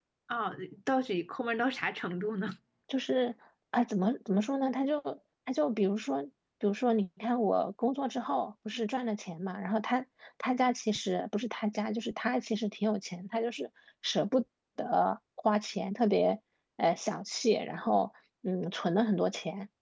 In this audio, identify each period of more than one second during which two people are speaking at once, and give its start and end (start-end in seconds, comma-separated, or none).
none